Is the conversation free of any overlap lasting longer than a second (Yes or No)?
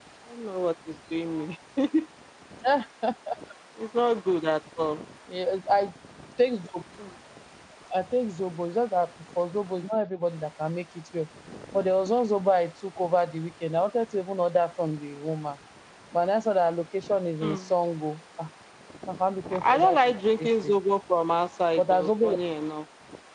No